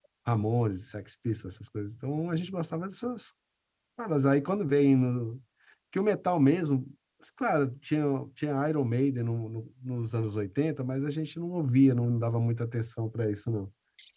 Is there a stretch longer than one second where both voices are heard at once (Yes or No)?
No